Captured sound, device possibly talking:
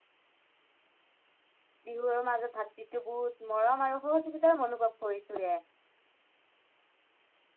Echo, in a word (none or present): none